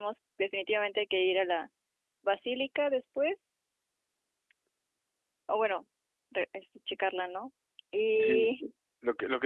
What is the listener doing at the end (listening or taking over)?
taking over